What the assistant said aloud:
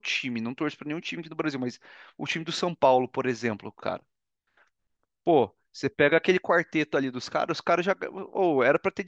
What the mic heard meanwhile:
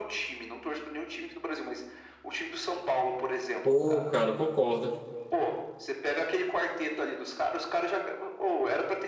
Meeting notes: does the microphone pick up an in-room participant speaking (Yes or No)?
Yes